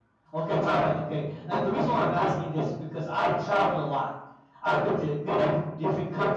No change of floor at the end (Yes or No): Yes